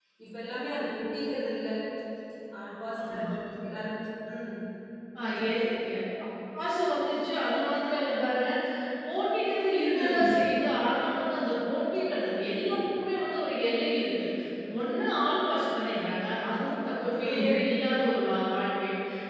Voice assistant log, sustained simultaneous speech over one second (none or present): none